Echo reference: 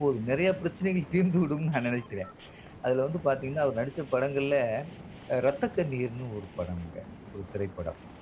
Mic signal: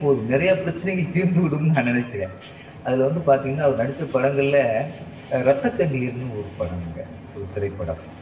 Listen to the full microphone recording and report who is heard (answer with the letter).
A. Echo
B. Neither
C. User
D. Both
A